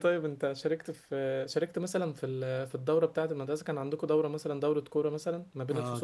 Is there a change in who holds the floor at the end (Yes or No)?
Yes